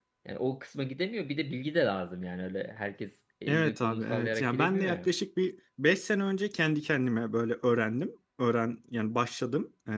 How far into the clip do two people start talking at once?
3.5 s

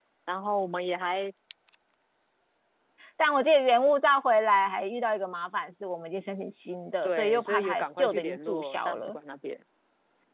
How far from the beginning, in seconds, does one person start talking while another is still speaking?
7.0 s

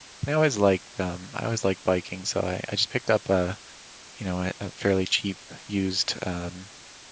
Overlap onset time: none

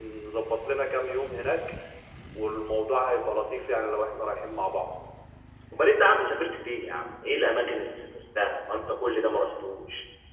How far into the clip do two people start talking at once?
none

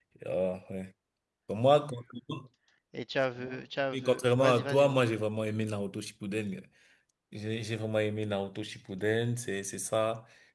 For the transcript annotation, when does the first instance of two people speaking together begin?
3.9 s

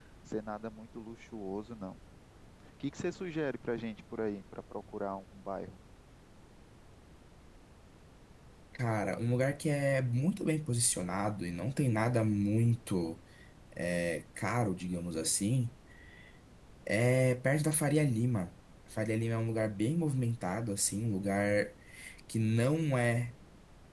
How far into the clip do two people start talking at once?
none

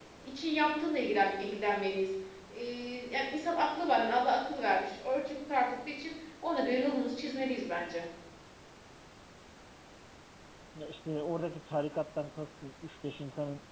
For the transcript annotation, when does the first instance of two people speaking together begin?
none

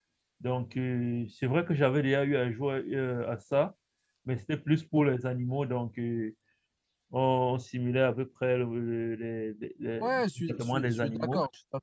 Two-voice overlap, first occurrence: 10.0 s

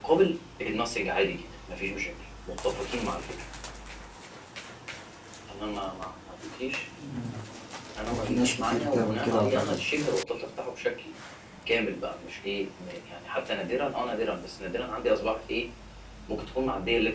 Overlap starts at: 8.1 s

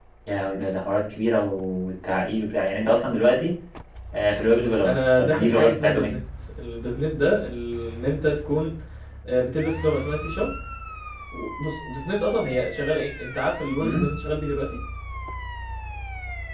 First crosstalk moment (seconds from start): 4.8 s

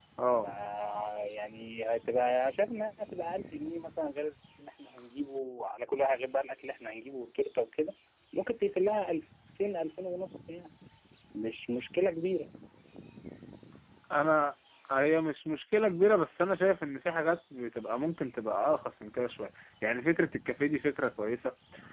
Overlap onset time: none

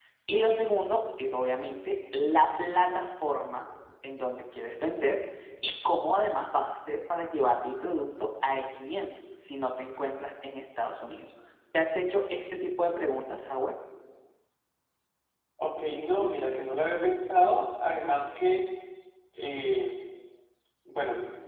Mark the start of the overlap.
none

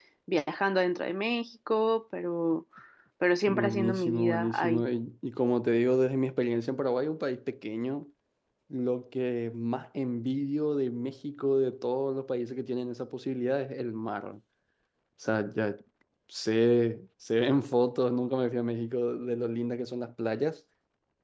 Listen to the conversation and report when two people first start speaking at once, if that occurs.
3.5 s

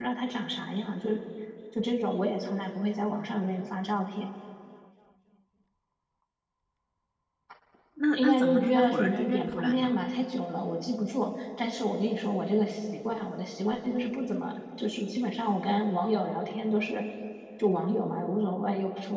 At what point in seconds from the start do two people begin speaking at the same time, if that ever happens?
8.1 s

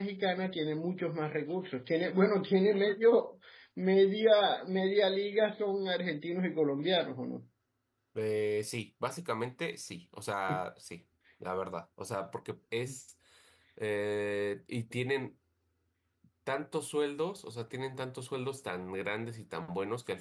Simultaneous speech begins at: none

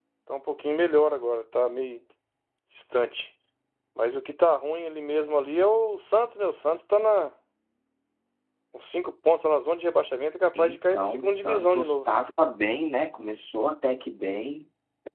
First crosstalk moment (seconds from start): 10.6 s

